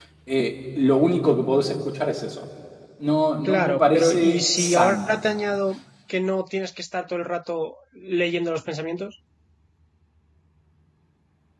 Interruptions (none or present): present